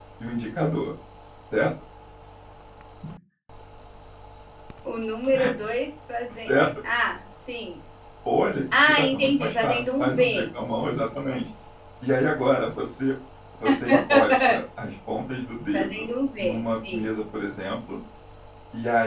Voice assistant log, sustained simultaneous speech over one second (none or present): present